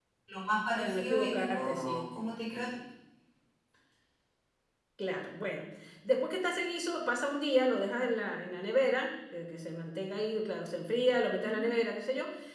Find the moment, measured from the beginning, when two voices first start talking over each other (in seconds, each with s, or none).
0.8 s